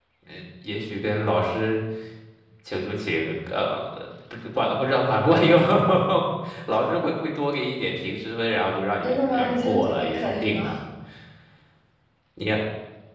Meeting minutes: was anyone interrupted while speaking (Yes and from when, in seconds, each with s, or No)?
Yes, from 9.0 s